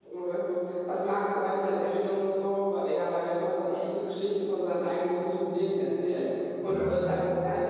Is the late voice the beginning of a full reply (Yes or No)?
No